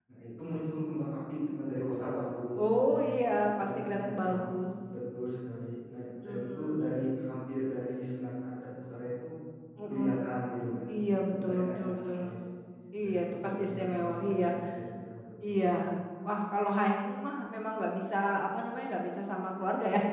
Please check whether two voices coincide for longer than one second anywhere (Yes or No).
Yes